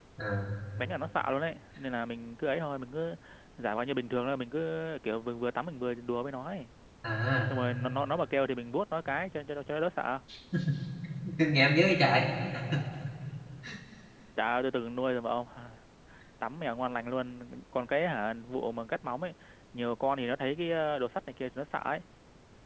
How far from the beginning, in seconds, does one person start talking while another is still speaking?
none

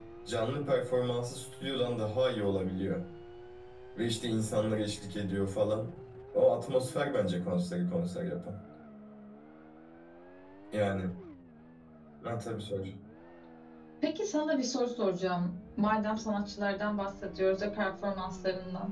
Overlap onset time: none

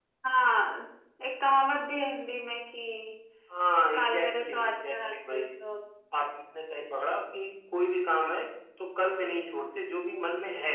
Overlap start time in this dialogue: 3.9 s

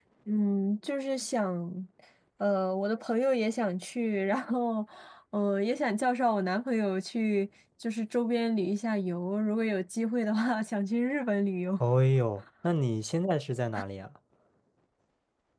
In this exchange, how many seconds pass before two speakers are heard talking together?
none

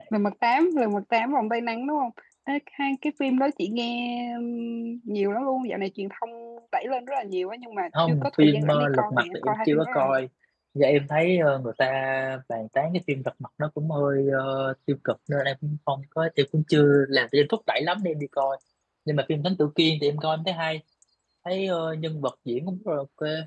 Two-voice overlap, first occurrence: 7.9 s

